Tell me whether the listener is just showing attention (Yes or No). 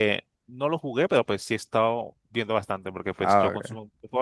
Yes